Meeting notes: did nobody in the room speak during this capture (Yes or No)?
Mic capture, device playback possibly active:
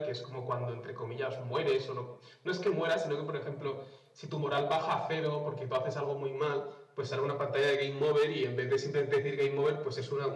Yes